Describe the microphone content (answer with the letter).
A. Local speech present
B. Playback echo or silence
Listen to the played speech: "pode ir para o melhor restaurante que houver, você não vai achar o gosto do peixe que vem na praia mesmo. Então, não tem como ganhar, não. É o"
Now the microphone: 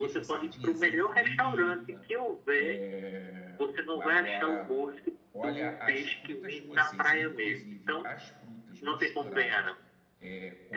A